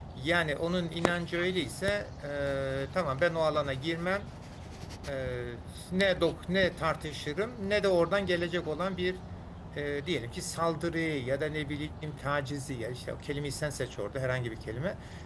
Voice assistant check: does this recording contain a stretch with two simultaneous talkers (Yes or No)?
No